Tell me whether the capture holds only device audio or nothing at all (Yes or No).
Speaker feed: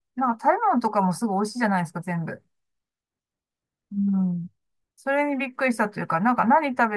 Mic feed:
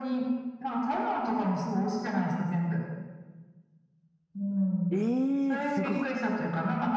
No